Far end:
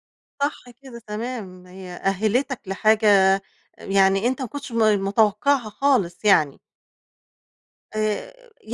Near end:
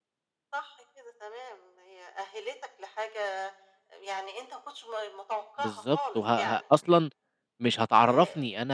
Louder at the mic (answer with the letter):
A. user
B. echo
A